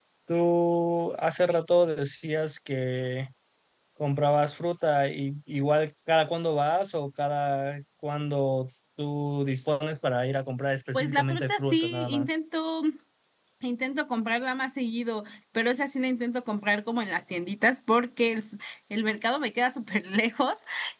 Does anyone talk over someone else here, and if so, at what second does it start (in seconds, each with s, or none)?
10.9 s